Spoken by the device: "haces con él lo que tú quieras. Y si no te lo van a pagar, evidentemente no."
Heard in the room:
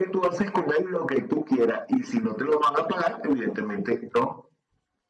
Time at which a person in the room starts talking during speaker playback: none

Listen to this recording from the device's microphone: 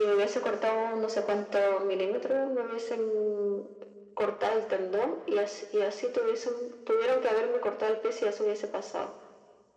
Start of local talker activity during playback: none

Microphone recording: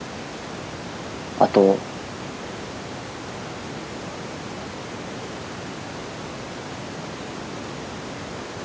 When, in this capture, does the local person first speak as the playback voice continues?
1.4 s

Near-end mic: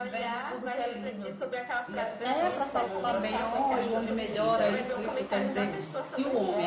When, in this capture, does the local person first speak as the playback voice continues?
2.2 s

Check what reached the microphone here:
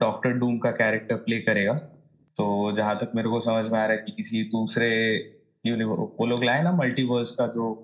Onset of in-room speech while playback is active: none

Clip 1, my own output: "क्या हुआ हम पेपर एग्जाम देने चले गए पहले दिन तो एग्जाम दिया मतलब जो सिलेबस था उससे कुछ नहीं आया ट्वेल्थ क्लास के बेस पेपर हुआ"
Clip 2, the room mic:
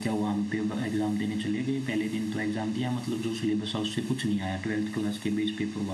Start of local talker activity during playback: none

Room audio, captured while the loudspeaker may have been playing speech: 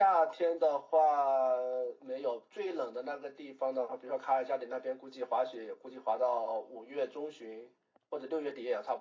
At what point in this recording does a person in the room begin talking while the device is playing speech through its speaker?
none

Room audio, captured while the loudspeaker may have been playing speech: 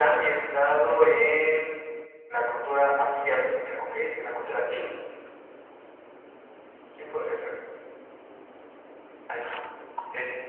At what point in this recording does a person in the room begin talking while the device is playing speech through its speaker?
none

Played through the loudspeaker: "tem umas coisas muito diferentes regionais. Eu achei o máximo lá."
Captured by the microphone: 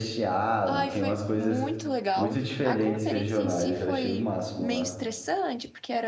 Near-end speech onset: 0.7 s

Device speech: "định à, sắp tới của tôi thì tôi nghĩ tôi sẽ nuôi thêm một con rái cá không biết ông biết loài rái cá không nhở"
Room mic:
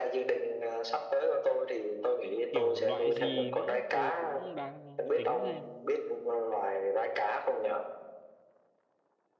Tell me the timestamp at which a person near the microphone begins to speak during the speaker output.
2.5 s

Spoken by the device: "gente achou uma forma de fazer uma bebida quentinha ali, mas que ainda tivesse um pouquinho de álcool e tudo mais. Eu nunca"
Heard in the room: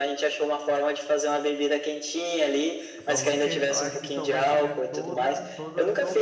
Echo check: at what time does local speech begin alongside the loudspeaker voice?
3.0 s

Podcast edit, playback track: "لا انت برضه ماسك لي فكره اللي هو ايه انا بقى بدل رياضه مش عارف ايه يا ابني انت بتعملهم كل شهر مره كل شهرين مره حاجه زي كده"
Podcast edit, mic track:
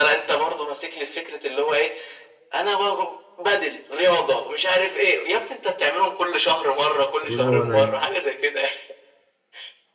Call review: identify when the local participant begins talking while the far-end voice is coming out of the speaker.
7.2 s

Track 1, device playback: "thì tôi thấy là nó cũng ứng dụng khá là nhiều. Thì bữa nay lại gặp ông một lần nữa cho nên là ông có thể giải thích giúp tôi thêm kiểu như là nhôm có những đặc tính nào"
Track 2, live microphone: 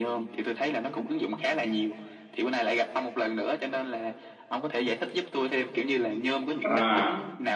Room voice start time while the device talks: 6.6 s

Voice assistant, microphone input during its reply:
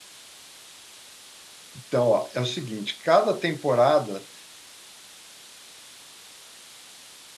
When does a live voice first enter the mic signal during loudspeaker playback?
1.8 s

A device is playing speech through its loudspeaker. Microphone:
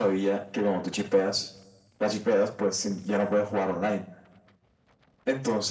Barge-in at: none

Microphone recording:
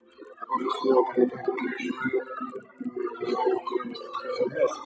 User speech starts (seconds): none

